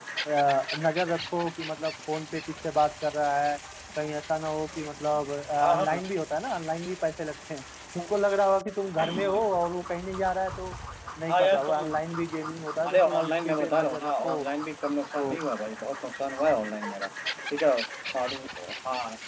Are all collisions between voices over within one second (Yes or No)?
No